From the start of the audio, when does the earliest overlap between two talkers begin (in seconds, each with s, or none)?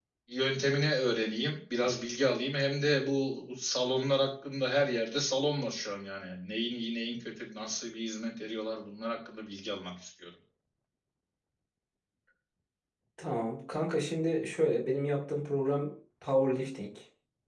none